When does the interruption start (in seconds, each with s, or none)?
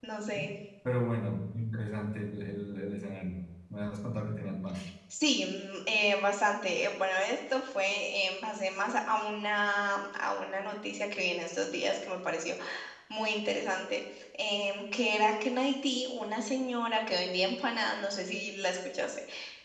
none